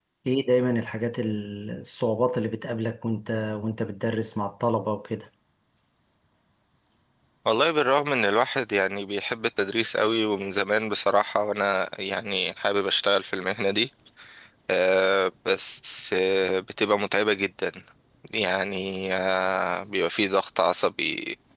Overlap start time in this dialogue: none

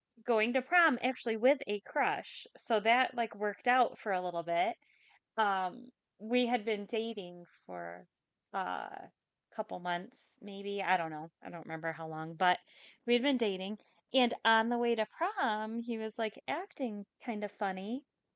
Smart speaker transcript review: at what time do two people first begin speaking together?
none

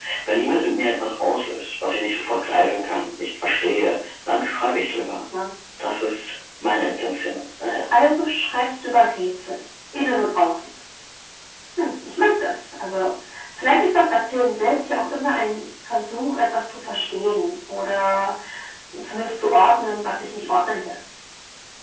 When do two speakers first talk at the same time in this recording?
none

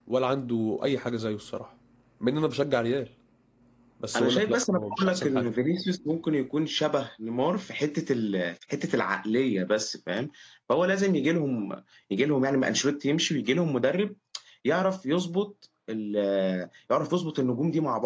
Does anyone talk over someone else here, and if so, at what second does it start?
4.2 s

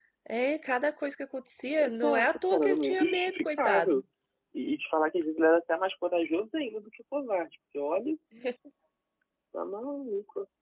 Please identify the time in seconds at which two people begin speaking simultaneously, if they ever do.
1.8 s

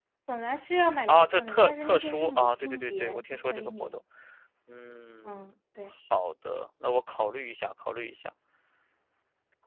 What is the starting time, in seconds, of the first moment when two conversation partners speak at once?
1.1 s

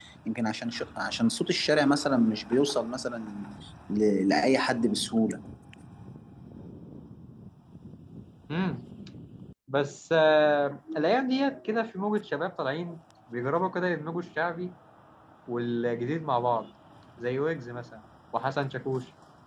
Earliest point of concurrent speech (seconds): none

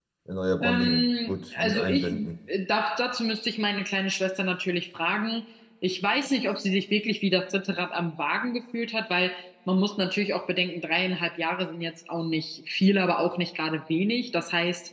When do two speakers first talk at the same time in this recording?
0.6 s

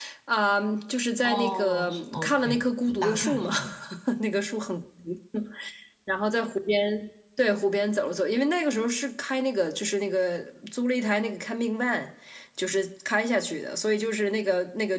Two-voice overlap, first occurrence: 1.2 s

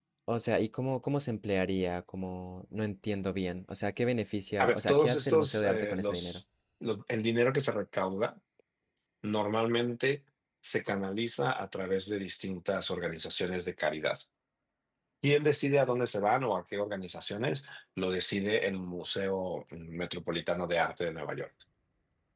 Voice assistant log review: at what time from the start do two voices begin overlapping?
4.6 s

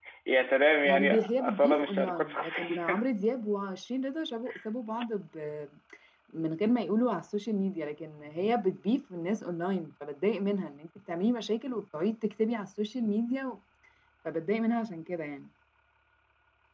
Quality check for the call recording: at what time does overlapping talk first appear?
0.8 s

